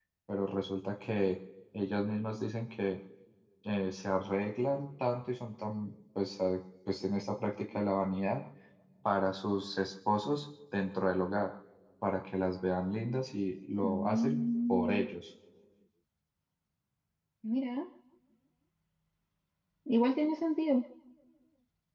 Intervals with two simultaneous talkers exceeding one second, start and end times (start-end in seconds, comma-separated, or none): 13.8-15.1